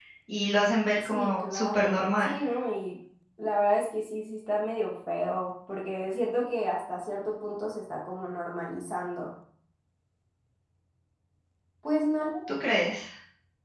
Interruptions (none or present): present